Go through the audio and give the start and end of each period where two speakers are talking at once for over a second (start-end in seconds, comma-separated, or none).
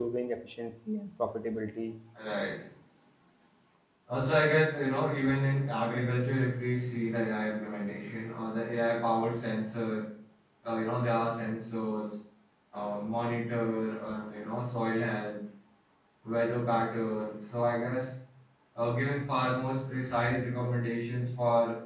none